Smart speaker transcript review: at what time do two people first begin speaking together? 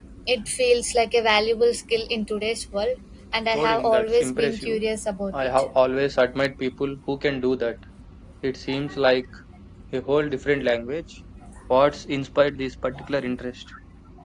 3.5 s

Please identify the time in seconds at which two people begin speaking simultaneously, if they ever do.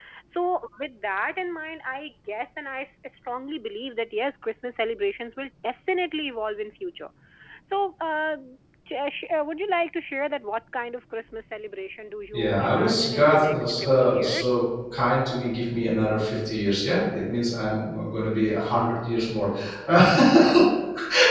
12.3 s

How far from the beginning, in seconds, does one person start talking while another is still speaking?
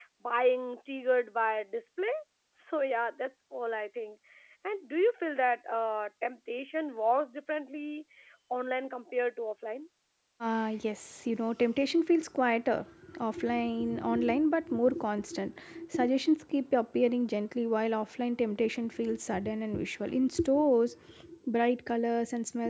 none

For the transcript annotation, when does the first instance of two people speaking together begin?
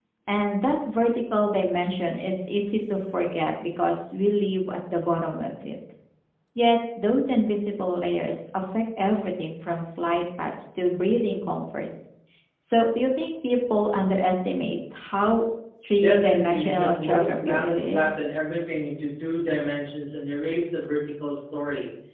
16.0 s

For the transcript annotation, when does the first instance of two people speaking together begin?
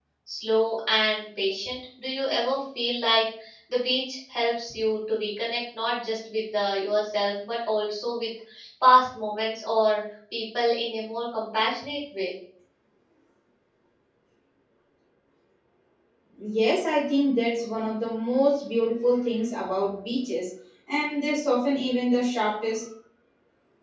none

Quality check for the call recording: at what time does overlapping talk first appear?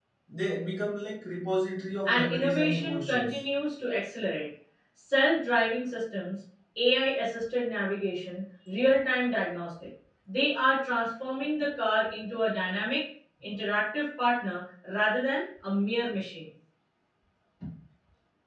2.0 s

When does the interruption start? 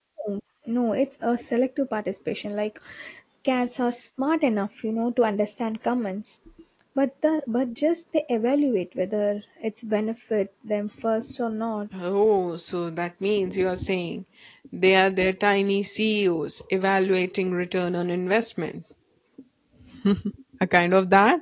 none

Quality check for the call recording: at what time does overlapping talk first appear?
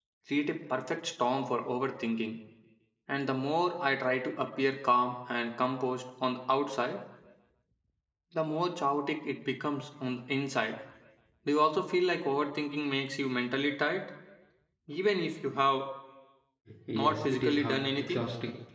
16.9 s

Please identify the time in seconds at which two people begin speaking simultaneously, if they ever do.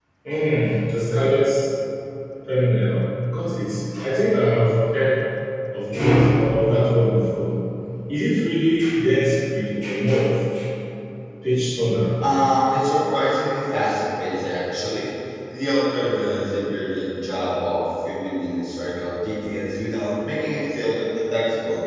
none

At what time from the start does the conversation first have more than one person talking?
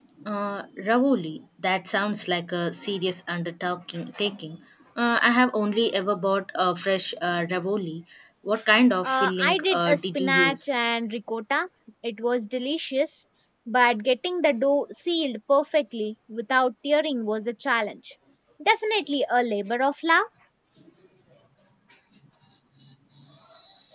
9.0 s

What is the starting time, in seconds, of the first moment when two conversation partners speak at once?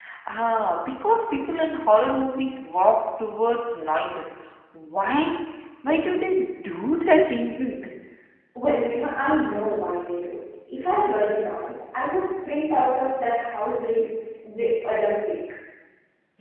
none

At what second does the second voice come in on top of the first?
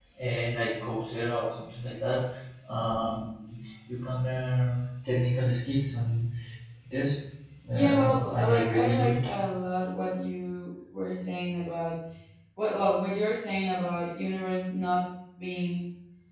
7.7 s

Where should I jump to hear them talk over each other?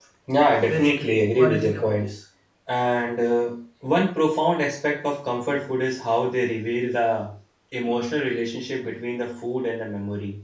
0.6 s

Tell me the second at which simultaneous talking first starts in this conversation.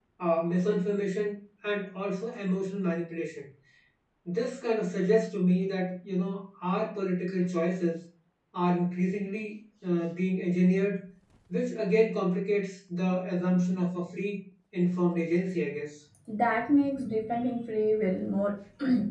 none

